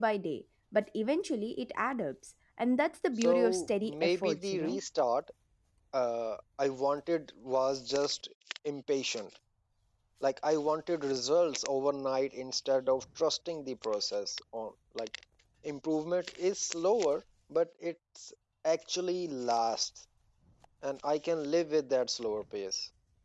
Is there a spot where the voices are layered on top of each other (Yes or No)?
Yes